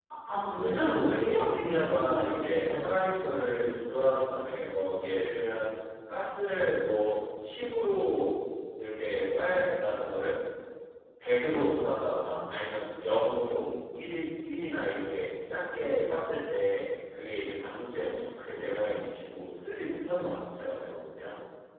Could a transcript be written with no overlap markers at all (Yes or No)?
No